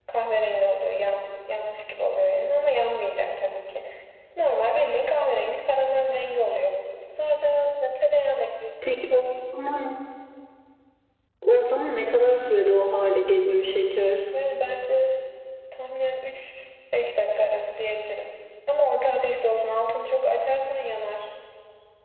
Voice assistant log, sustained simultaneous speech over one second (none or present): none